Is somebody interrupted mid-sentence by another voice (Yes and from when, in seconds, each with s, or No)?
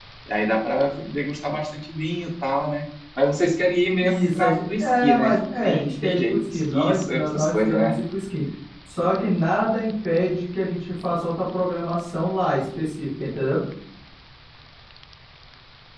Yes, from 4.0 s